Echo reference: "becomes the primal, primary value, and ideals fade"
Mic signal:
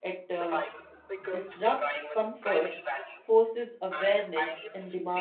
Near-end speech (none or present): present